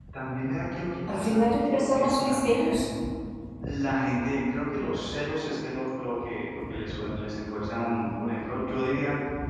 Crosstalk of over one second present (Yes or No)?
Yes